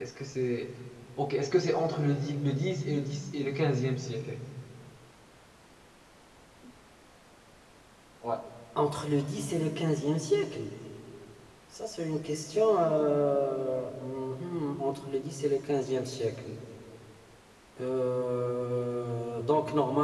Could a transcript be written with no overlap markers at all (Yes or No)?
Yes